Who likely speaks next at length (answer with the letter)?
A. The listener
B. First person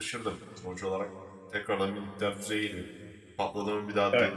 B